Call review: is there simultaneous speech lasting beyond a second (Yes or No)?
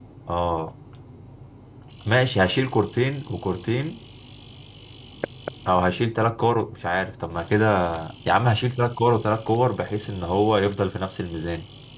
No